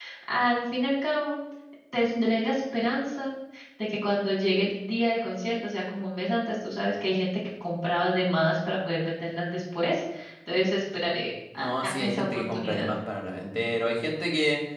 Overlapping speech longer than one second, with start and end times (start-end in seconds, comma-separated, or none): 11.6-12.9